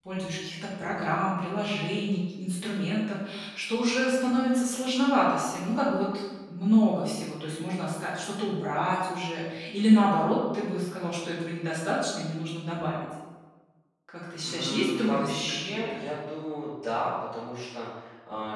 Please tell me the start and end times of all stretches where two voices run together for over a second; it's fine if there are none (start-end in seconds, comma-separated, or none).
14.4-16.0